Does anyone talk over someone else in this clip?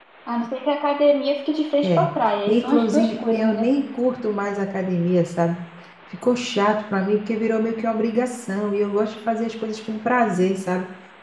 Yes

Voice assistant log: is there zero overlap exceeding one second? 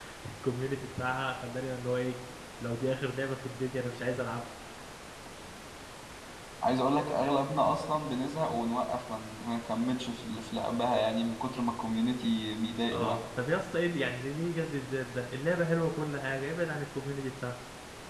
Yes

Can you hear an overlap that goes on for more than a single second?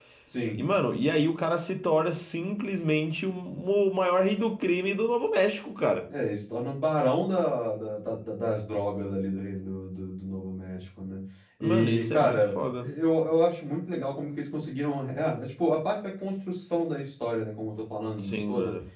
Yes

